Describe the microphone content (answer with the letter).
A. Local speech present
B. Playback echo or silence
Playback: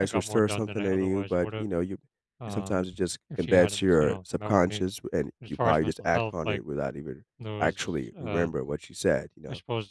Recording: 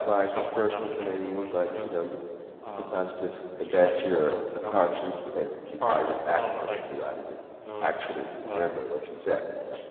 B